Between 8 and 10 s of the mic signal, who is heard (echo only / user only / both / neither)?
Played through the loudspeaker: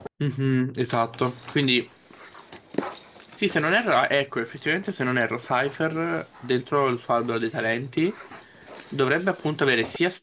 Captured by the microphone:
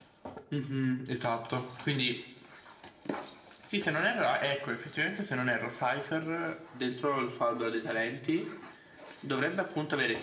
echo only